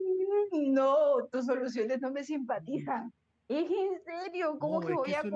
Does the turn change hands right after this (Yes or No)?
Yes